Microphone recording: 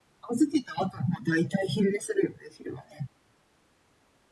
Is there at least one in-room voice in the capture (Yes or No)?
No